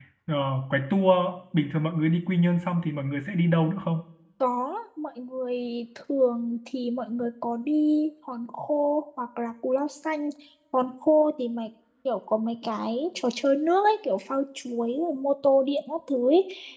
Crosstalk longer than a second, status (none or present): none